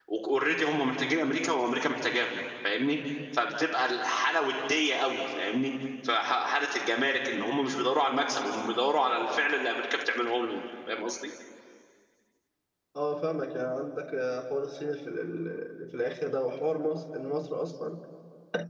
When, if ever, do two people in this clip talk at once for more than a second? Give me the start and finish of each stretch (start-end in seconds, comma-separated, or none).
none